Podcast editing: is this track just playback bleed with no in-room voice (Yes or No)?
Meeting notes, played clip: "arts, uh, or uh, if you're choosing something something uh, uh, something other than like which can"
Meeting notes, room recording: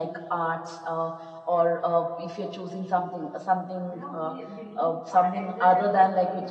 No